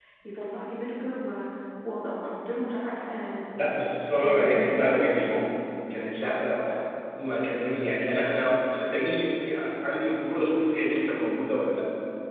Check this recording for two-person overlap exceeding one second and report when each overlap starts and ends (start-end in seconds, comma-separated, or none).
4.2-5.4